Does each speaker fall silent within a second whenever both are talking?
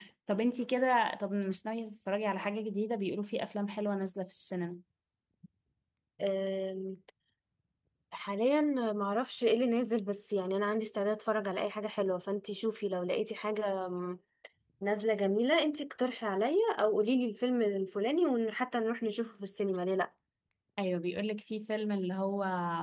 Yes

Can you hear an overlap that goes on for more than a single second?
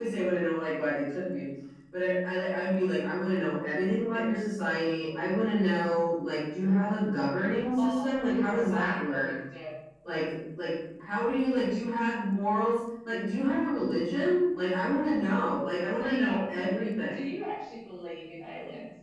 Yes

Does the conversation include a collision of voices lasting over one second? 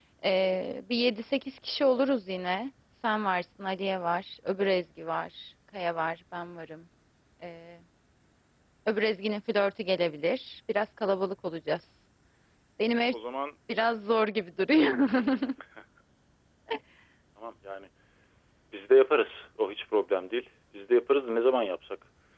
No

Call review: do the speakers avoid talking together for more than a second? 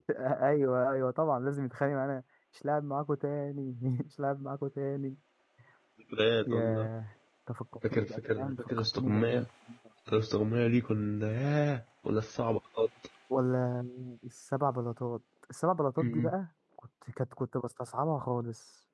No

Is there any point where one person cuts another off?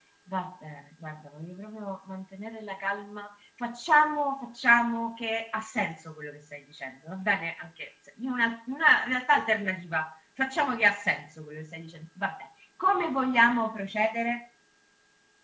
No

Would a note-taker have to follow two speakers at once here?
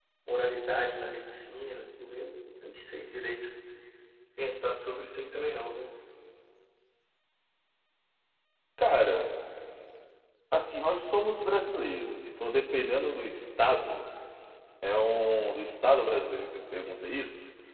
No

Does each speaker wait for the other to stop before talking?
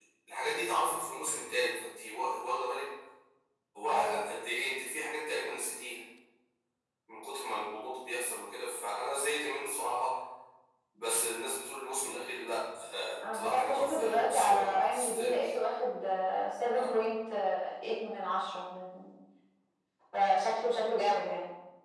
No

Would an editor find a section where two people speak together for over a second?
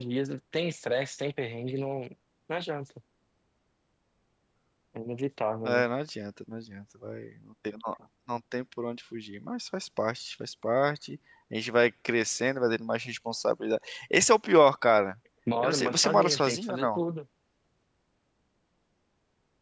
Yes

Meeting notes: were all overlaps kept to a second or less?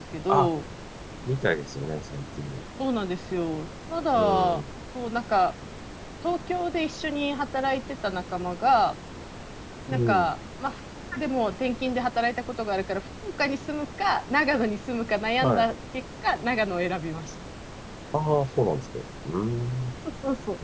Yes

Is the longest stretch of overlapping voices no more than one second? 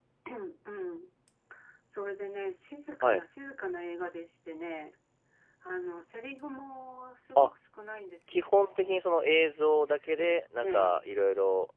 Yes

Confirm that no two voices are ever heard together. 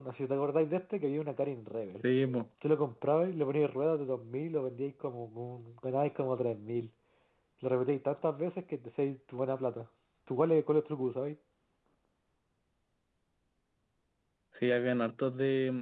Yes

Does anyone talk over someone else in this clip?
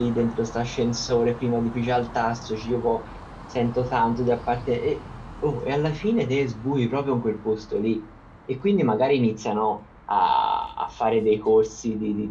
No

